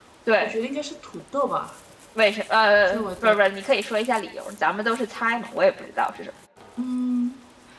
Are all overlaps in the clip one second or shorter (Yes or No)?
Yes